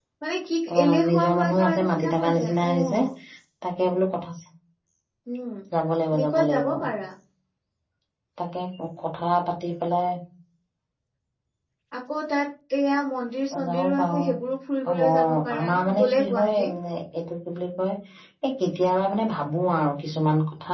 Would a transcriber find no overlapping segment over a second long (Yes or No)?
No